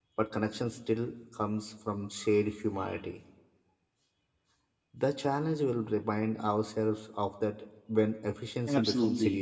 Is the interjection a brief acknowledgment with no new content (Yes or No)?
No